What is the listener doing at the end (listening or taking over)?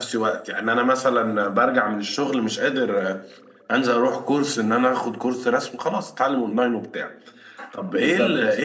listening